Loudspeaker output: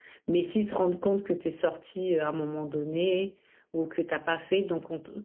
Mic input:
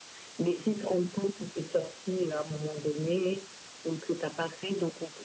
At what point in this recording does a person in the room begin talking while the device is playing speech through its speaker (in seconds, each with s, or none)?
none